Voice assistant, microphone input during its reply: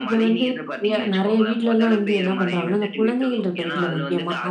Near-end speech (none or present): none